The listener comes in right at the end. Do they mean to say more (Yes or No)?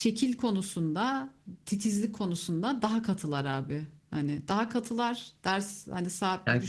No